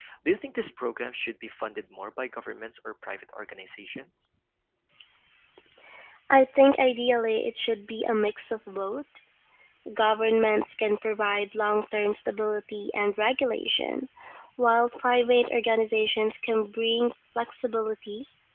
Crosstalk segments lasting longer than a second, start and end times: none

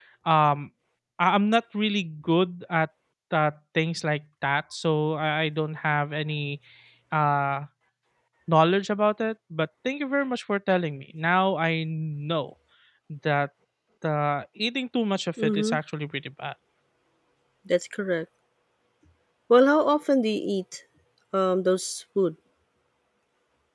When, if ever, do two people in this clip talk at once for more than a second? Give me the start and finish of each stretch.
none

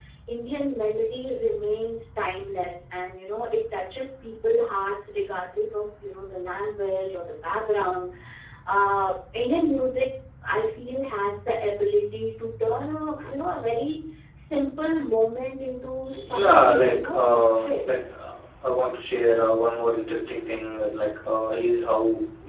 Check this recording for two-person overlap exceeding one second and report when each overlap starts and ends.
16.4-17.9

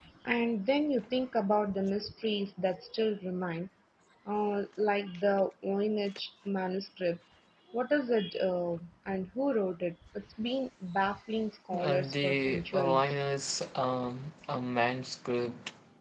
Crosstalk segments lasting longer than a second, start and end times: 11.8-13.2

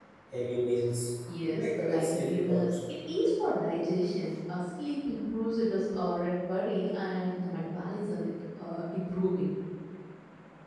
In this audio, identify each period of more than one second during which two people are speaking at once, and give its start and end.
1.5-2.7

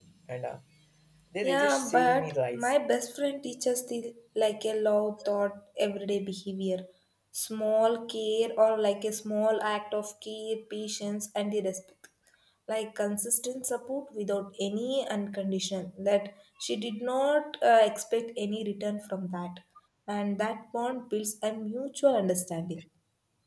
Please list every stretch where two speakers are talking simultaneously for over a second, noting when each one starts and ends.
1.4-2.7

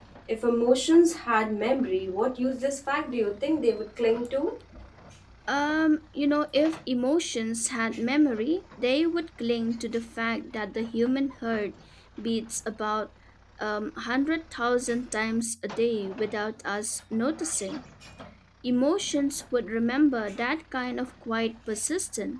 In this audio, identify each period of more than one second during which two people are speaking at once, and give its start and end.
none

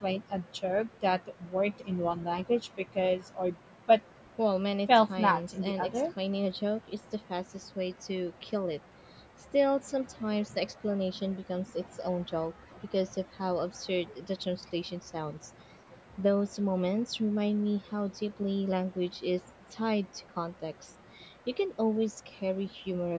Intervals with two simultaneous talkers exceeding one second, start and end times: 4.9-6.1

